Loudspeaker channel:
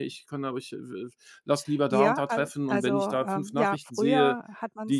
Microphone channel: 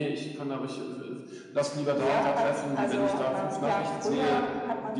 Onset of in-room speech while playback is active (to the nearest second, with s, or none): none